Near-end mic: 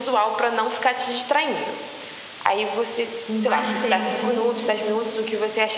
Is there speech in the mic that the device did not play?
Yes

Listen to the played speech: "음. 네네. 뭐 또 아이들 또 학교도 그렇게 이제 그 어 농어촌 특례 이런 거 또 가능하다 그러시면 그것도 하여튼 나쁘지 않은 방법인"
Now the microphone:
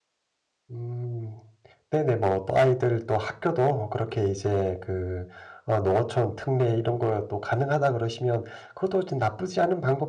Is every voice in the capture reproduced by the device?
Yes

